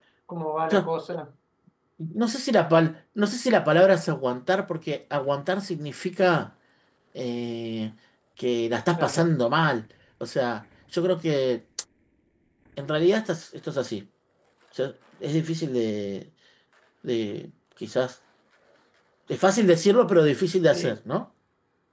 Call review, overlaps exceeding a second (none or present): none